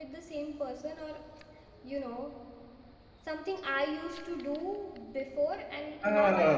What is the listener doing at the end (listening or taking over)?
taking over